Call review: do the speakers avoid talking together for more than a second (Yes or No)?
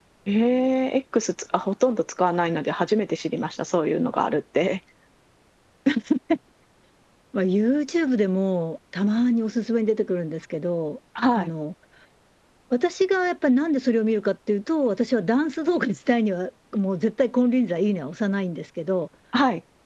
Yes